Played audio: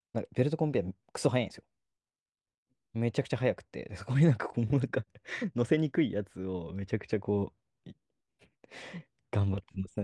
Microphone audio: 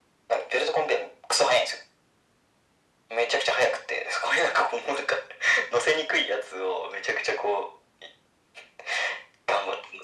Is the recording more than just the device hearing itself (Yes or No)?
No